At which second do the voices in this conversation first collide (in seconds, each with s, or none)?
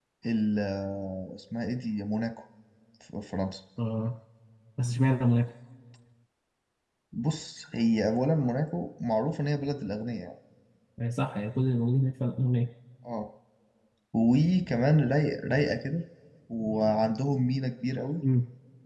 none